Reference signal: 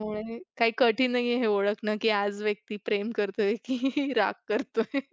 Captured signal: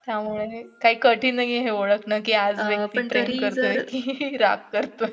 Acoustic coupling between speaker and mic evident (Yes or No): Yes